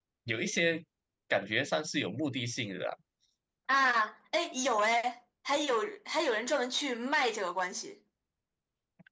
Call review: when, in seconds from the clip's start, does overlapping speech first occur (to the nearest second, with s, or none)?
none